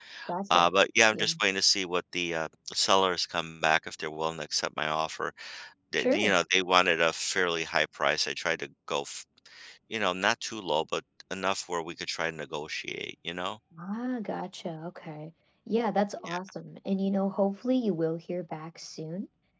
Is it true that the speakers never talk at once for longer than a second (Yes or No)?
Yes